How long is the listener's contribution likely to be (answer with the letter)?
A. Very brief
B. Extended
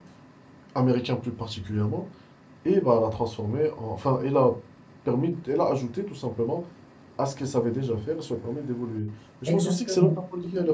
A